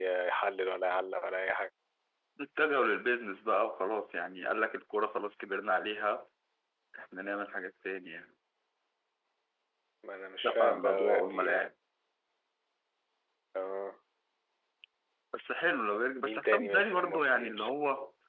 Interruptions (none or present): present